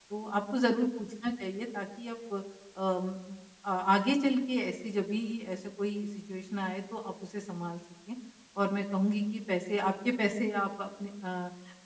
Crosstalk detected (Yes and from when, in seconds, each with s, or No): No